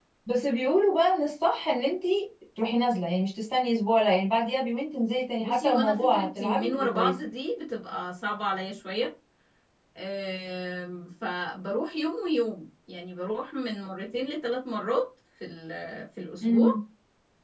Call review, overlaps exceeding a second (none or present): present